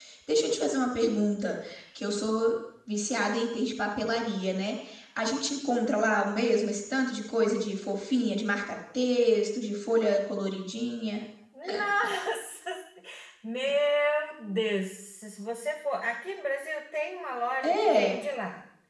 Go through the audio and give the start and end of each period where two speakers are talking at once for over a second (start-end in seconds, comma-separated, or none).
none